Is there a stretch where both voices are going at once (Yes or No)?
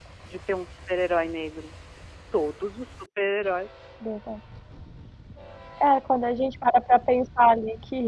No